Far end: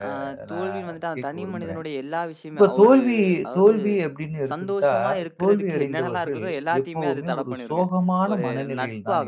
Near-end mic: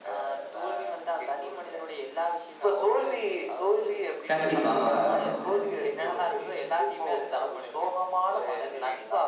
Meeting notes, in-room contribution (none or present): present